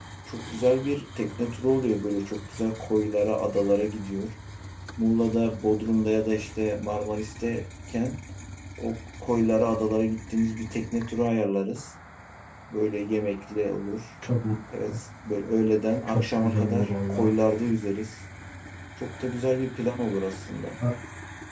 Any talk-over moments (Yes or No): Yes